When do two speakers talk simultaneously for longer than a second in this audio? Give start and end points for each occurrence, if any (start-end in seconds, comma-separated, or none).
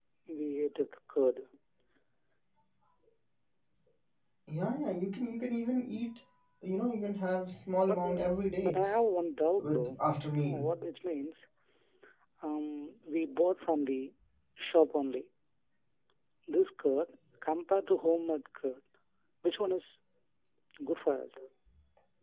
none